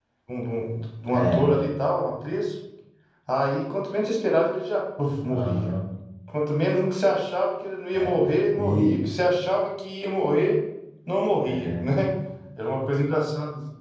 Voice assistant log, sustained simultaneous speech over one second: none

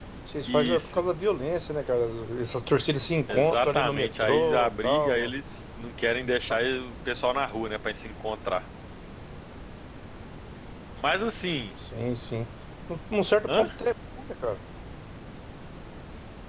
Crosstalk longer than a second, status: present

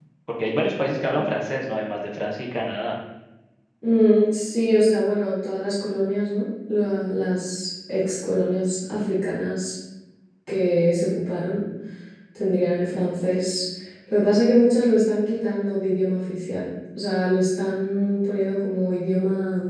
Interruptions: none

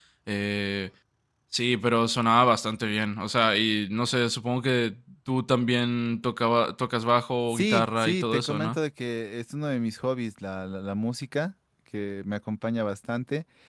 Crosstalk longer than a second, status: present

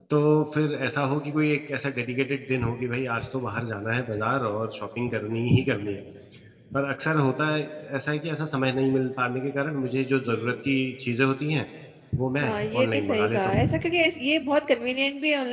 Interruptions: present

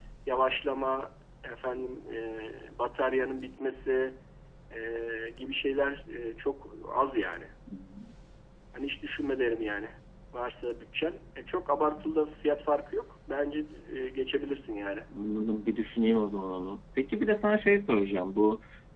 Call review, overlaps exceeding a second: none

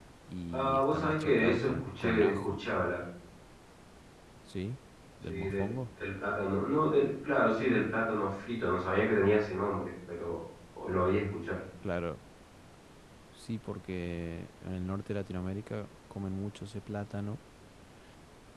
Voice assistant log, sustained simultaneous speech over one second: present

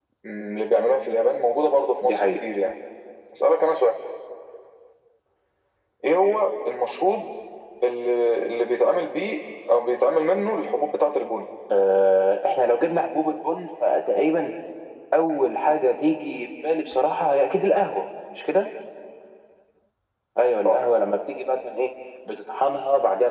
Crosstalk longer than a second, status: none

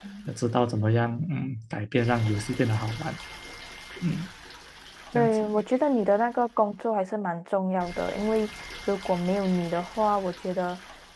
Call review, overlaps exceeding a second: none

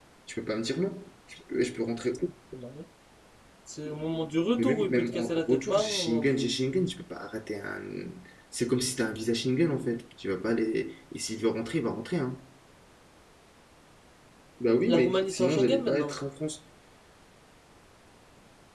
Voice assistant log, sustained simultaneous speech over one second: present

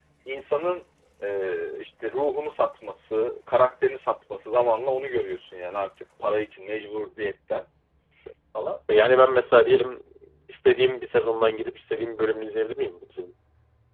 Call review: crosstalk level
none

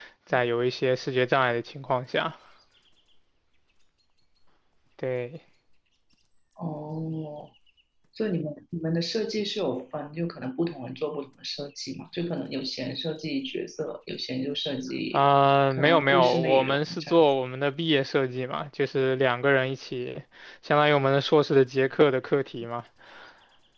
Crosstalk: present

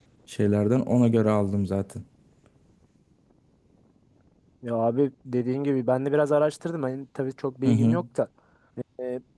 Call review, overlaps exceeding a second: none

